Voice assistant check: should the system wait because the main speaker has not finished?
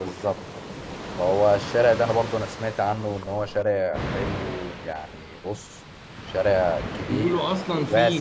No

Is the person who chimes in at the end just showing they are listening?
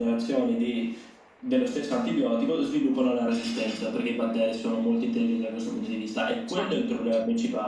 Yes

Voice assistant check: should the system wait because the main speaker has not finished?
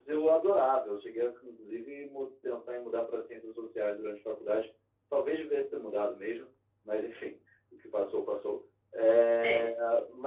Yes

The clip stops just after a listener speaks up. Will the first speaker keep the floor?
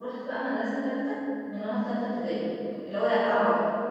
Yes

